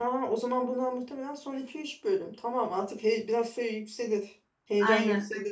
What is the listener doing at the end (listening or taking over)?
listening